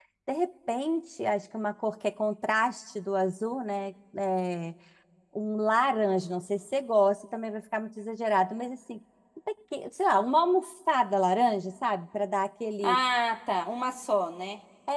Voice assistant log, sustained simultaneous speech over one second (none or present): none